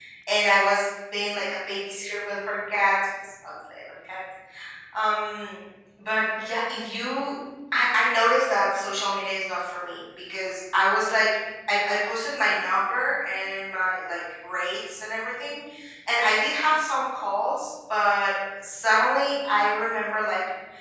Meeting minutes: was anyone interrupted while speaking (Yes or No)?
No